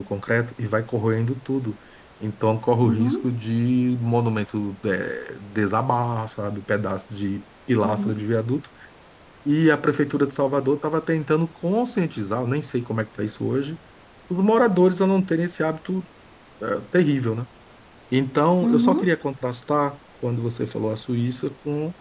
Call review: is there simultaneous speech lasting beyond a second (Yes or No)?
No